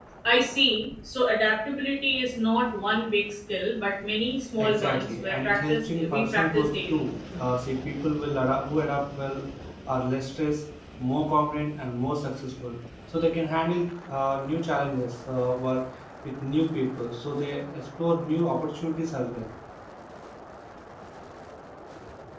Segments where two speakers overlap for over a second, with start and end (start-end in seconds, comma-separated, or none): 4.6-7.1